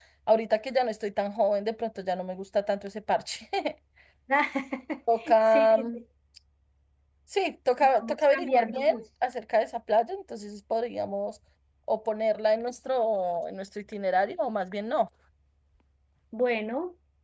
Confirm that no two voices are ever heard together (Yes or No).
No